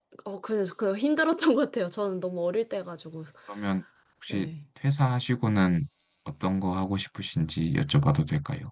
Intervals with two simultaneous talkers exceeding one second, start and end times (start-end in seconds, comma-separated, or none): none